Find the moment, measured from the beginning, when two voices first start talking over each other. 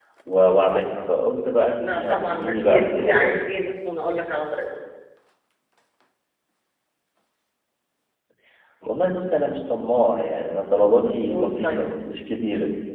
2 s

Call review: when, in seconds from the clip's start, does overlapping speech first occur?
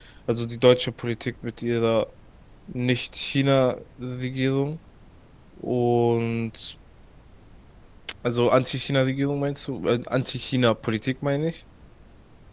none

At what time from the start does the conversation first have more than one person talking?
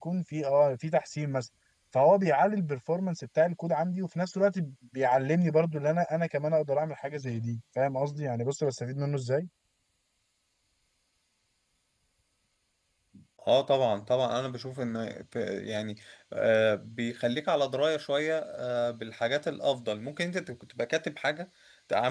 none

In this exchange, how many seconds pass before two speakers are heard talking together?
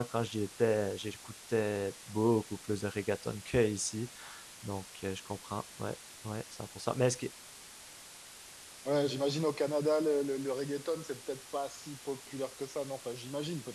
none

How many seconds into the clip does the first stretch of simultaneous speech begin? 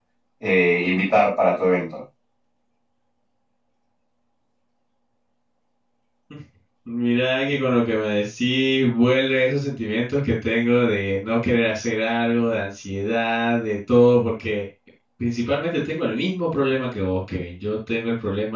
none

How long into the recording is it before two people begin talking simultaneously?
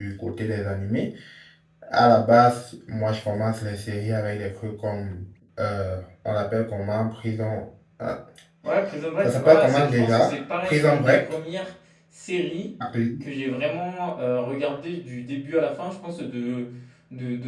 9 s

